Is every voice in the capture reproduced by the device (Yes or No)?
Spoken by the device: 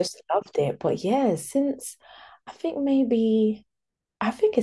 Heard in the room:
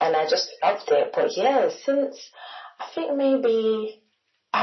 Yes